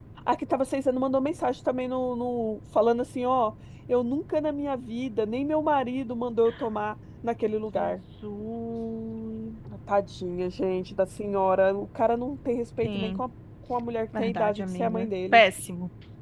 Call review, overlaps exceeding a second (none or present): present